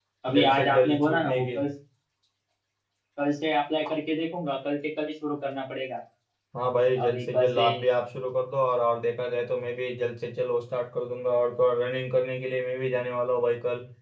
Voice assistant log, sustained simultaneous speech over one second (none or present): present